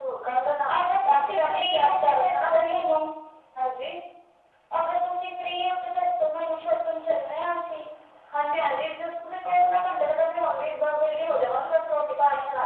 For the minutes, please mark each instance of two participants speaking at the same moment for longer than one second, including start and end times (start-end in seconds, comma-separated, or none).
0.8-2.7